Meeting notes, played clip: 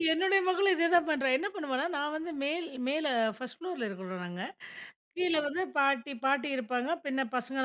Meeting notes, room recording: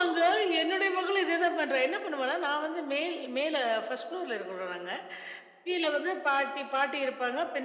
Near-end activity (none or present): none